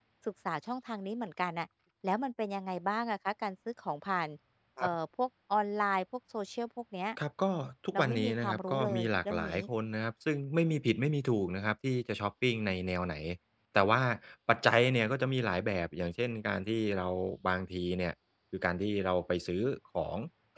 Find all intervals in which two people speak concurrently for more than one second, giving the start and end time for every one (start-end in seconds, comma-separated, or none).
7.9-9.6